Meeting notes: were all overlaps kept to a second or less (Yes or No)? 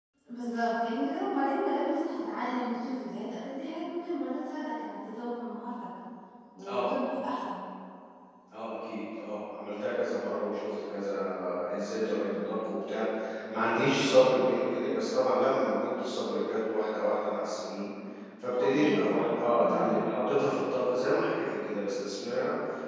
No